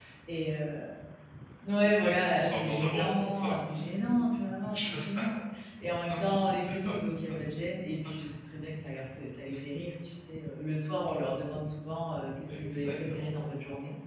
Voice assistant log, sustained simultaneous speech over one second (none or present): present